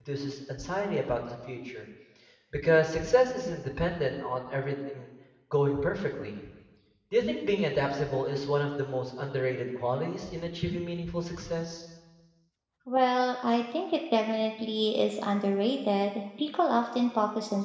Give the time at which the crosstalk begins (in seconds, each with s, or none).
none